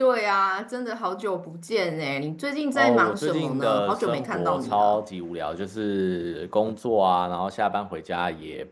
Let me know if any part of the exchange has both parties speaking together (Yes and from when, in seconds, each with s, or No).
Yes, from 2.8 s